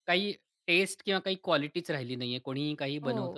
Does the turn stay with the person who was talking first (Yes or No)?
No